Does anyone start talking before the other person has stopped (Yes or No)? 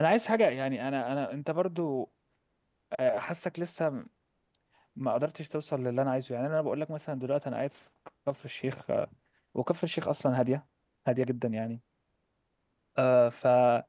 No